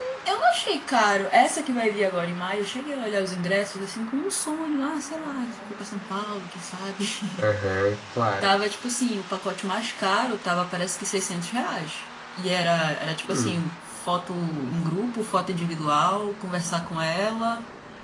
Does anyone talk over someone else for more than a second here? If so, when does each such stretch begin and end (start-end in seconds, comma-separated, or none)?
none